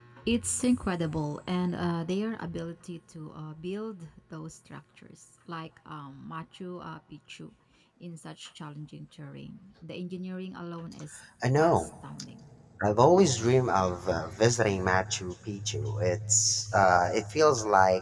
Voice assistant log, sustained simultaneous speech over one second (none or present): none